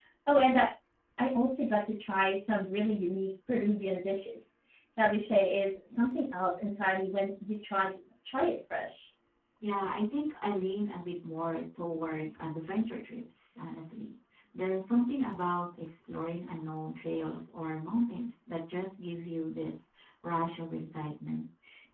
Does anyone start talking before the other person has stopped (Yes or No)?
No